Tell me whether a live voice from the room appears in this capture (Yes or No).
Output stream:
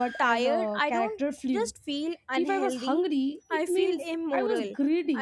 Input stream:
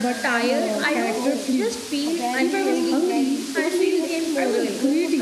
Yes